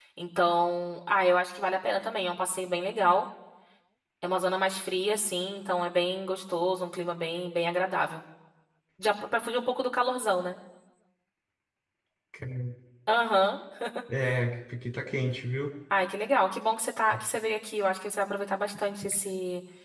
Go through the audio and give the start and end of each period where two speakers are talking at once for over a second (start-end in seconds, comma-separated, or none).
none